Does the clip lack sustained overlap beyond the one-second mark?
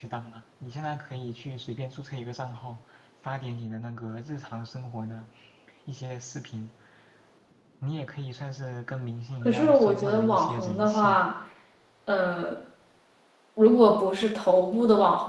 No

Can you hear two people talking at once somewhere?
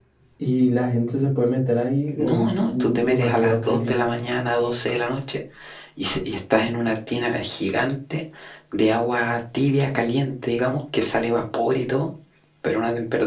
Yes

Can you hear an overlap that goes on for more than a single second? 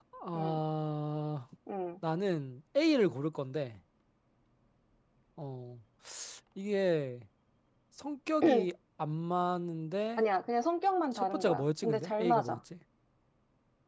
Yes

